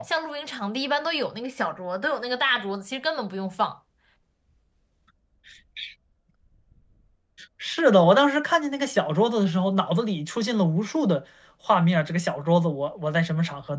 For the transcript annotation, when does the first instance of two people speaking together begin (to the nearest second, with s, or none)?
none